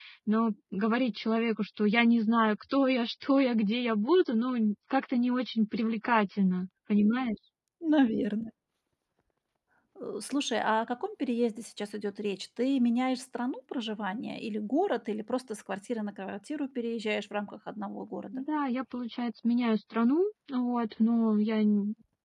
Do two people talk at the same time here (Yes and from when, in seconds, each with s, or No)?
No